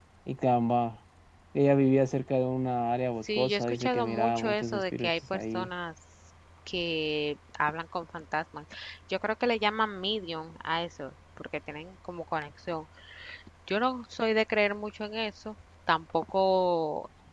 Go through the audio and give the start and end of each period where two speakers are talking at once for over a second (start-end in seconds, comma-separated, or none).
3.4-5.7